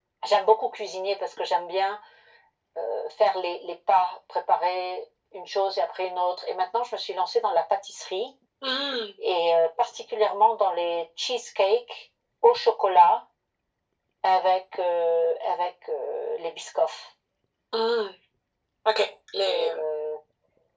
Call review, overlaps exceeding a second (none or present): none